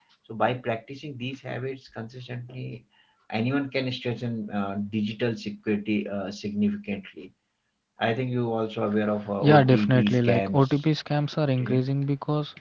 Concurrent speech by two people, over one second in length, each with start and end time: 9.4-10.8

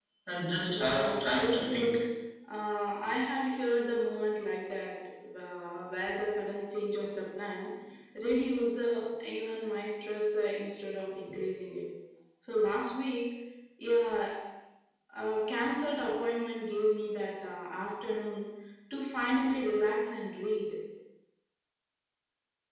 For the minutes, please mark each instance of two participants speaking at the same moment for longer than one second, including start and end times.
0.8-2.0

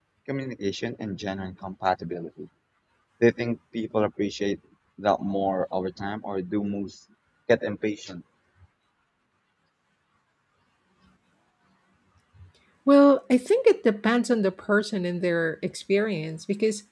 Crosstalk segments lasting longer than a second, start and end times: none

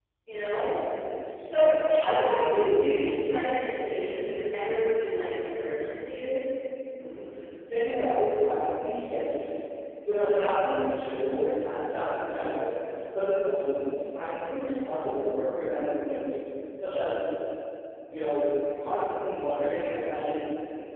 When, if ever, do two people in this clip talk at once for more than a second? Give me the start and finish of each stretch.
none

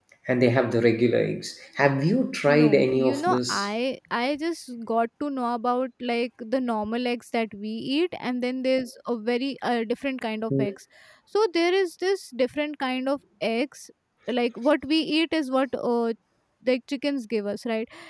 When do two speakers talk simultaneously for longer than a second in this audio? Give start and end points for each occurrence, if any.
2.5-3.7

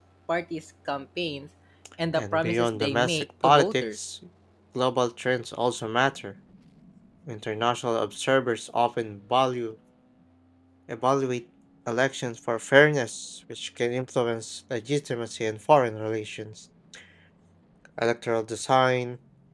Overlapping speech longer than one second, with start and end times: 2.2-4.0

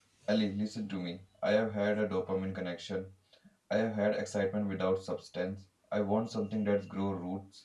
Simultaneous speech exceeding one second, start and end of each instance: none

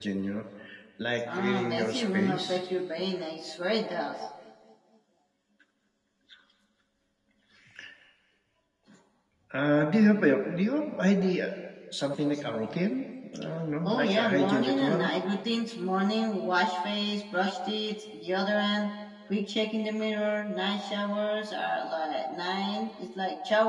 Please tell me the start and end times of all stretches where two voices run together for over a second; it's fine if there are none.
1.4-2.6, 13.8-15.1

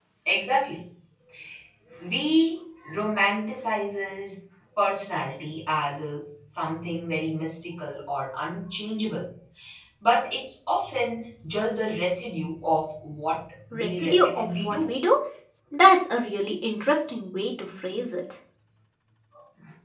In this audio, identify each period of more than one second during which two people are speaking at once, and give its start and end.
13.7-14.9

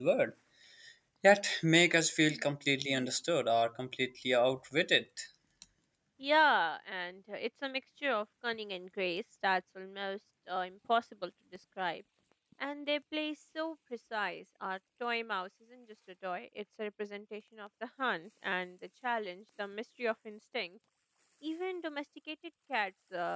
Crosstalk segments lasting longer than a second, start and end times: none

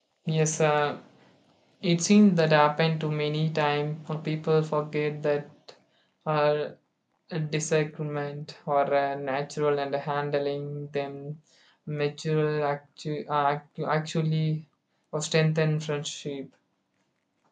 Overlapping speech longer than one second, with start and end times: none

